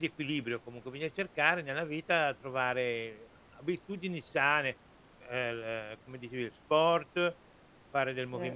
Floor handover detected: No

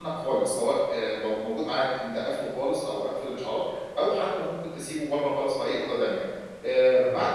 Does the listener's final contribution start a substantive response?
No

